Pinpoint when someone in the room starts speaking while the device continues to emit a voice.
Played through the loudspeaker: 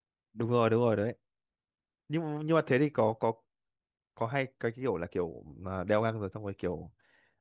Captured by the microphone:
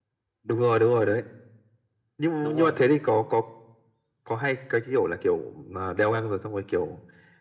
2 s

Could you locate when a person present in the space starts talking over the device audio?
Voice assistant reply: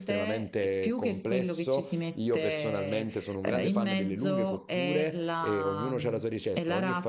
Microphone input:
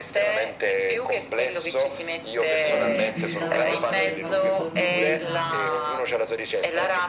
3 s

